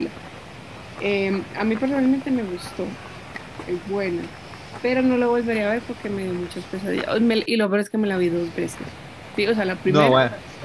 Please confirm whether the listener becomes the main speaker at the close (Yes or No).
No